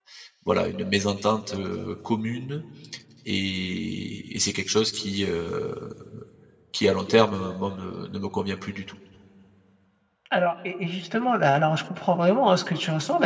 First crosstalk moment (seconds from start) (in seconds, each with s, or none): none